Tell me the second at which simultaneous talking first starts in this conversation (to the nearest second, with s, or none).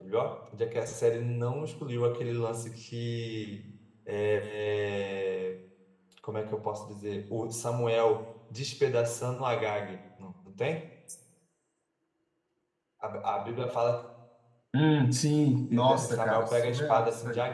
16 s